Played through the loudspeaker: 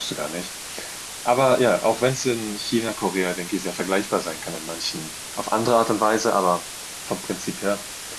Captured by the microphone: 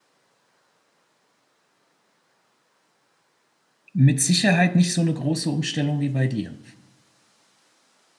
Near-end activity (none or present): present